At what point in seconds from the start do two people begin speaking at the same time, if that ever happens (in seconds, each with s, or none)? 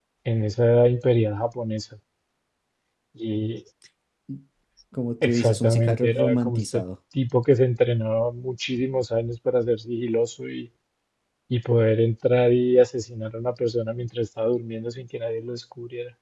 5.2 s